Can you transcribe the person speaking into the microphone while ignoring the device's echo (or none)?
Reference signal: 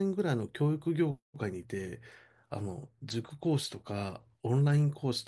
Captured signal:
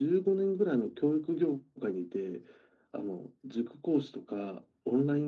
none